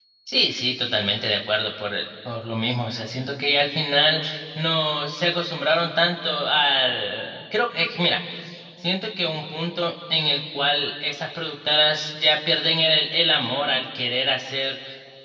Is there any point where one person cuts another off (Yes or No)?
No